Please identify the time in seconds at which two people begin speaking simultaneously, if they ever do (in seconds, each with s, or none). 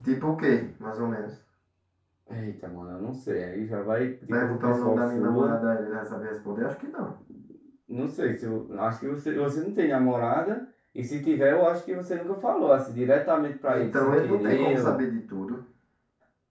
4.3 s